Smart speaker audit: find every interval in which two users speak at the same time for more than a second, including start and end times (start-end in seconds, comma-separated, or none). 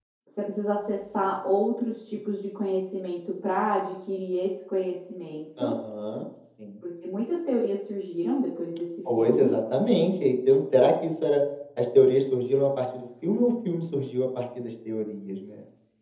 none